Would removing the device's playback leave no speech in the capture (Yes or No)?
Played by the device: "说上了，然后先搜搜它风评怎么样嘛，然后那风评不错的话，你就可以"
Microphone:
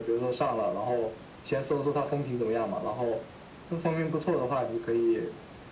Yes